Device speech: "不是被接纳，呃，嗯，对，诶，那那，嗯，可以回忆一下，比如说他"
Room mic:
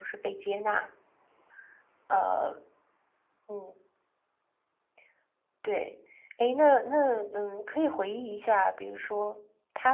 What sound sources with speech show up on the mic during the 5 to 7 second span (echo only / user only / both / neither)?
echo only